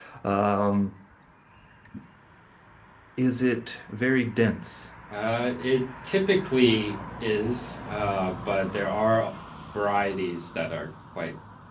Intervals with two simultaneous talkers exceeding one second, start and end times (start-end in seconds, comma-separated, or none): none